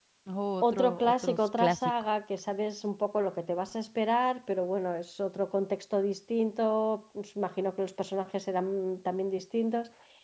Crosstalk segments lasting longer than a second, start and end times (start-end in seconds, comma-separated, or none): 0.7-1.9